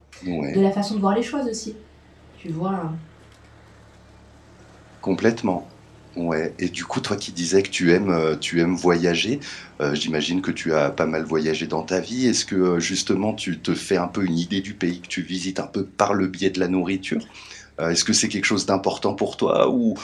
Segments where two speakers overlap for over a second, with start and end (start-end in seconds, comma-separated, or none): none